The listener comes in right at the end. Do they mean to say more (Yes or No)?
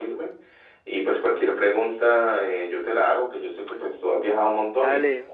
Yes